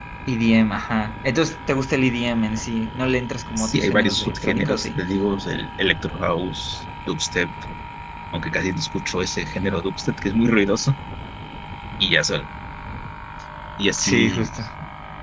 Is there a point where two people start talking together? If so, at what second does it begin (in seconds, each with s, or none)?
3.6 s